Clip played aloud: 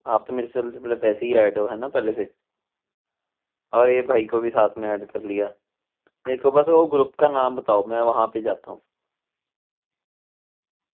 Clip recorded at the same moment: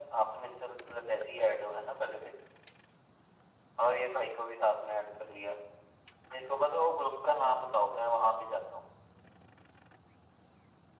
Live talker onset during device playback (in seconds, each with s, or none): none